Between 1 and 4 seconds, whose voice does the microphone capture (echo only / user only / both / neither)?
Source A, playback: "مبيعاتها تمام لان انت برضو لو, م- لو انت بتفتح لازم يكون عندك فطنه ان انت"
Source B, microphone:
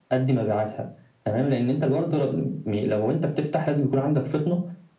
echo only